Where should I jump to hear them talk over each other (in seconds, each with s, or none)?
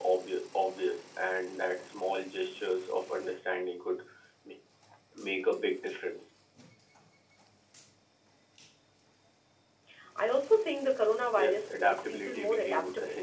11.4 s